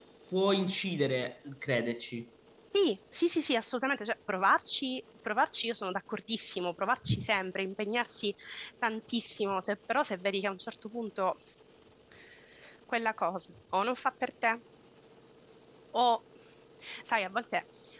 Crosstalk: none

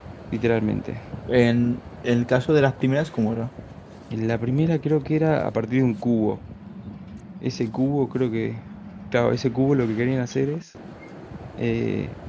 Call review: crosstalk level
none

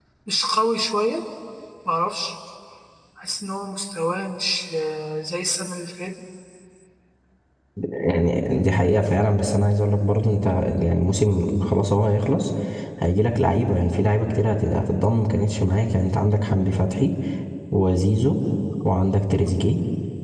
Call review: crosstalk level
none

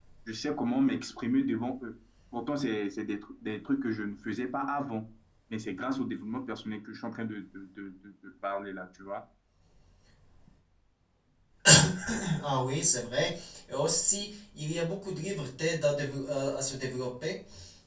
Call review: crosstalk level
none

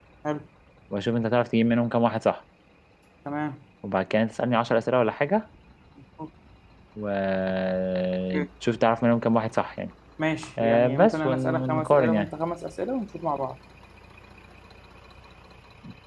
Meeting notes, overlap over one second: present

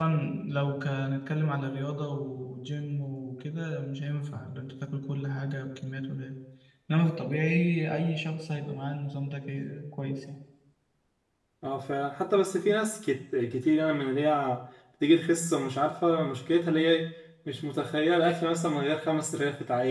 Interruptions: none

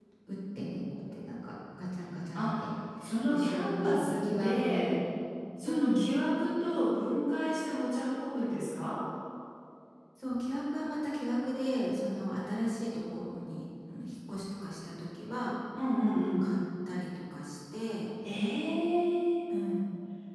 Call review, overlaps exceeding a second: present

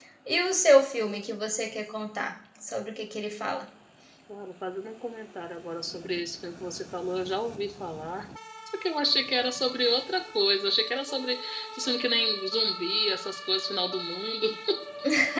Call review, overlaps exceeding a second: none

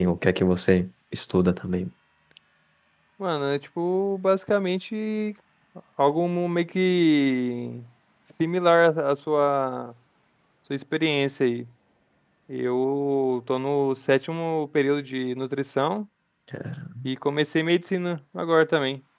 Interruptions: none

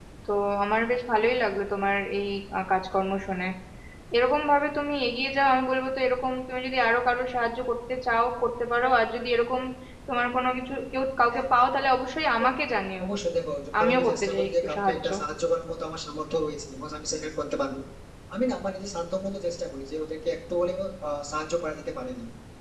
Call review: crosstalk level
present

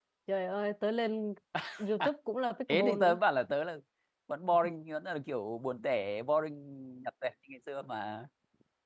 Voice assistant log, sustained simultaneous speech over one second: none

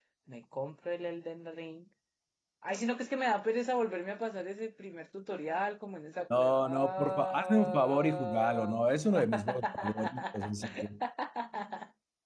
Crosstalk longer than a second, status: present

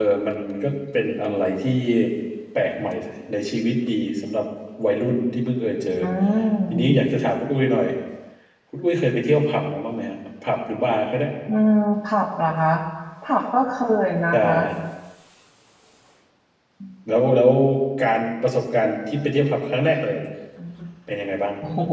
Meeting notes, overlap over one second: none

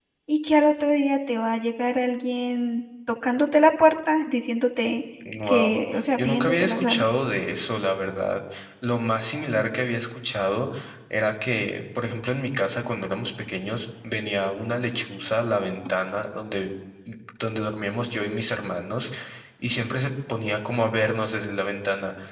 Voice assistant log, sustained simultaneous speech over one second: present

